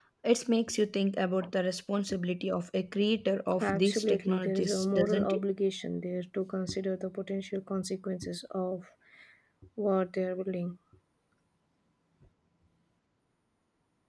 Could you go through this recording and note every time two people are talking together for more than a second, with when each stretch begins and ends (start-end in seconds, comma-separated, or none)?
3.6-5.4